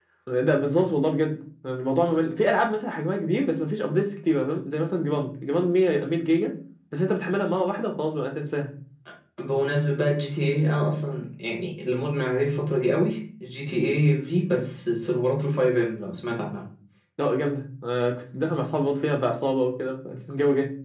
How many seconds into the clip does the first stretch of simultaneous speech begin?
none

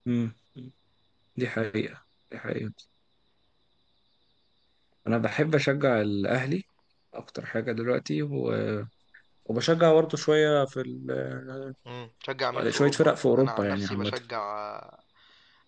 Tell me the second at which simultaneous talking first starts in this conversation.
12.7 s

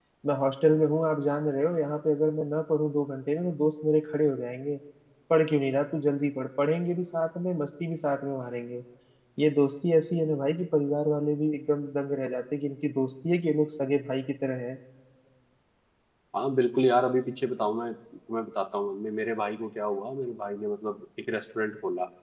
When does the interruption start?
none

